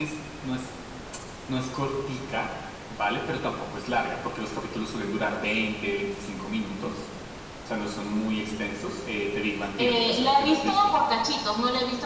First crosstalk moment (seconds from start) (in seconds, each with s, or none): 9.8 s